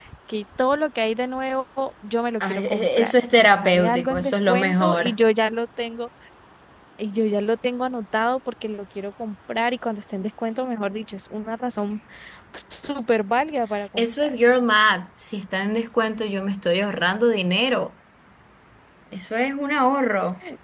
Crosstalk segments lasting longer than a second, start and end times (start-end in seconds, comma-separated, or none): 2.4-5.1